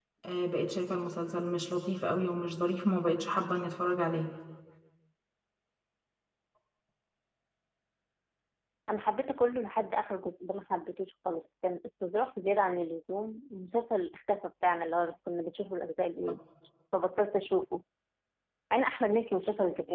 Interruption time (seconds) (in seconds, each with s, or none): none